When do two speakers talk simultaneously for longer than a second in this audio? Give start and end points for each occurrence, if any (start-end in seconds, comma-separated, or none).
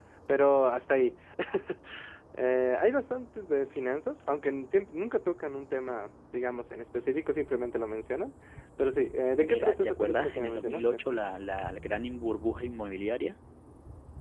9.4-11.0